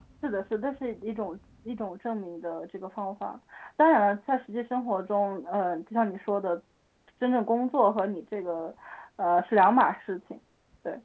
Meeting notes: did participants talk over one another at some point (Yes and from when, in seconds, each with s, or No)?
No